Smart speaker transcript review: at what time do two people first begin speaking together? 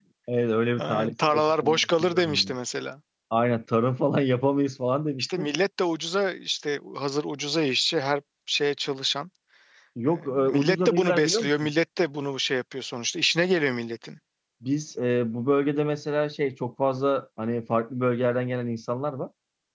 1 s

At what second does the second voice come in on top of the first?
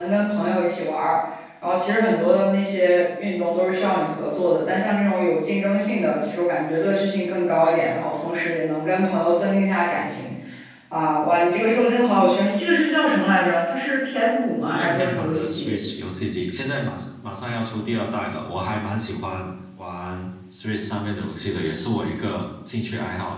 15 s

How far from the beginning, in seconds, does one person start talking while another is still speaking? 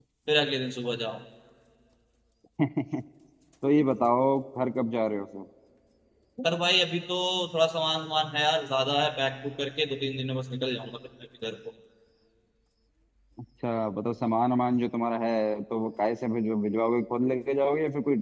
none

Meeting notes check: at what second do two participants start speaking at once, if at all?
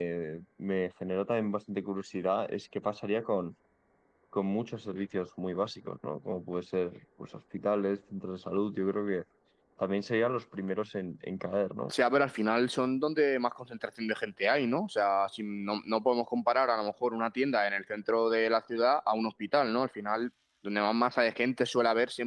none

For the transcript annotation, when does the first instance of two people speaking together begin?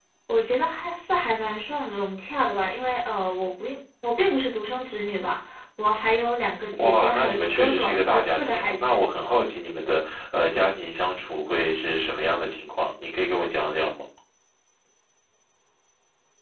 7 s

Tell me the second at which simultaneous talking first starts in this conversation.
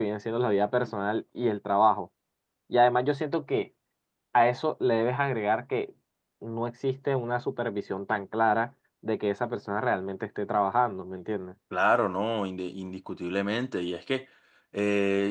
none

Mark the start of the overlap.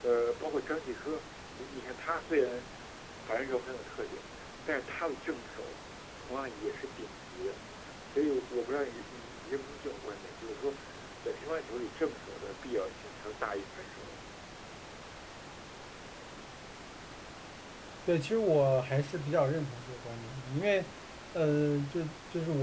none

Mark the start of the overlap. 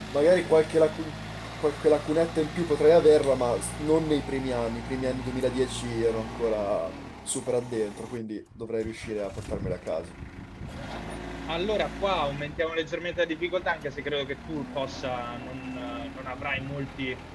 none

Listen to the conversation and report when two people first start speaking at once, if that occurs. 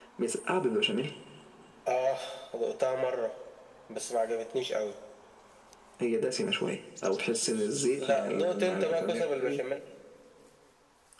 8 s

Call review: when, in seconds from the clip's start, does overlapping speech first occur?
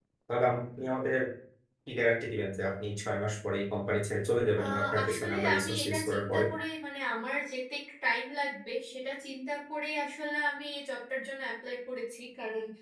5 s

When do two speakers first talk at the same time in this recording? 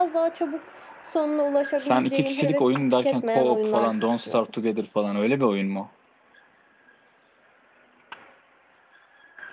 2 s

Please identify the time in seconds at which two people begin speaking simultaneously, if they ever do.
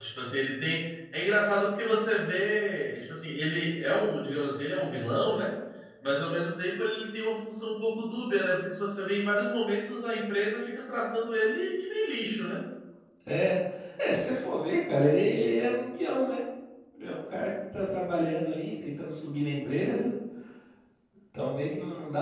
none

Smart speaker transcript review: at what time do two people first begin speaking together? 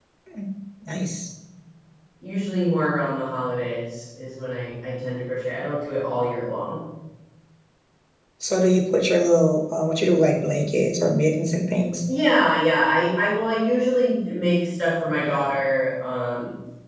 none

